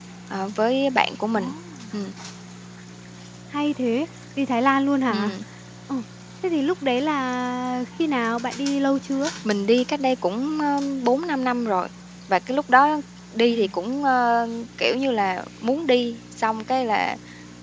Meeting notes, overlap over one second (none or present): none